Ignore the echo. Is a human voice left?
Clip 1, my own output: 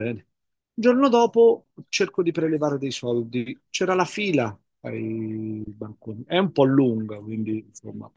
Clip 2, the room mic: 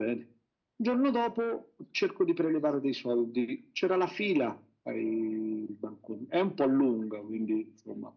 No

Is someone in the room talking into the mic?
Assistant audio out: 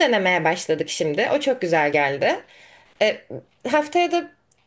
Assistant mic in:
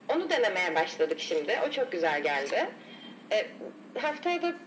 No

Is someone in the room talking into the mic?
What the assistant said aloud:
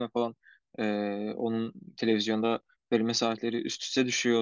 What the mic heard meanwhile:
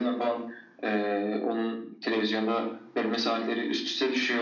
No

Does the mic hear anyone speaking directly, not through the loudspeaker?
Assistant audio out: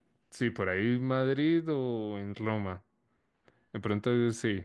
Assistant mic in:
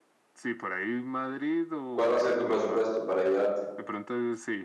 Yes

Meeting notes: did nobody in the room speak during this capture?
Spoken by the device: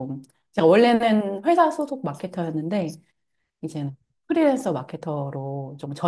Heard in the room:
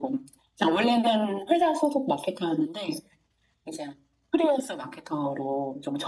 Yes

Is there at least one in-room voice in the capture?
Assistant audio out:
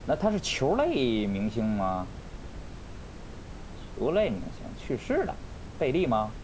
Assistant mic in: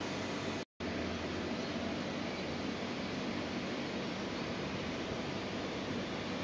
No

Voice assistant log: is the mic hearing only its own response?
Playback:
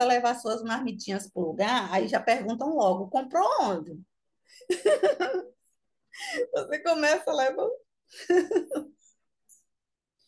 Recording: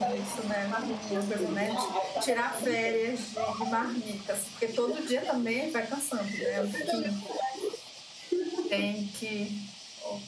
No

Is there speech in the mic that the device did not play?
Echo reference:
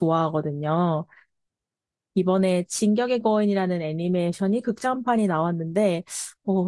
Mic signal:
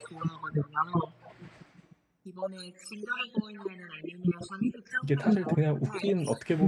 Yes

